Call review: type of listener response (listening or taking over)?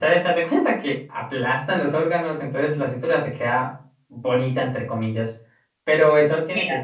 listening